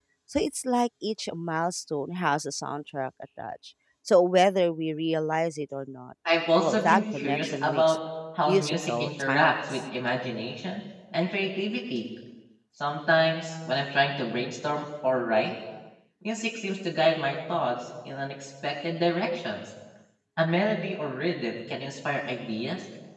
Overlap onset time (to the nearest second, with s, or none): 7 s